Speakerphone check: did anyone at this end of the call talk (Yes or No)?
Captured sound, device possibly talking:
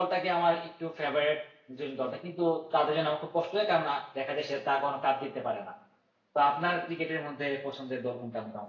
Yes